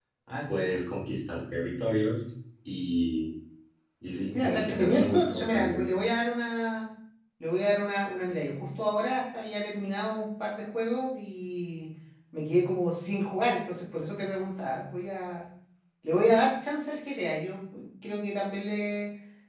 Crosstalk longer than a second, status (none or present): present